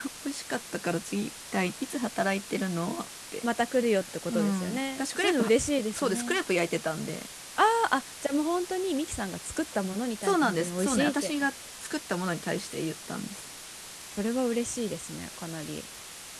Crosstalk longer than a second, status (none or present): present